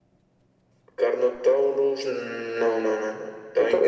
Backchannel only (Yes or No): No